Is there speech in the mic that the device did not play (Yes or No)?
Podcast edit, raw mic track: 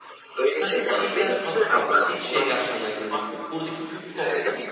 Yes